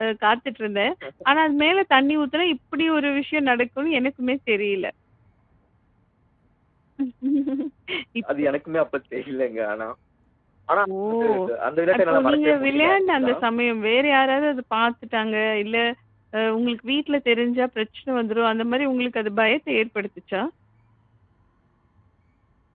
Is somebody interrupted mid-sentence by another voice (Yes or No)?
Yes